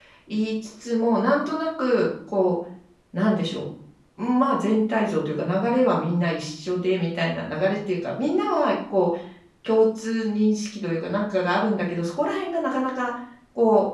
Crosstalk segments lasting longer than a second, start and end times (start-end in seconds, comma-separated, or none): none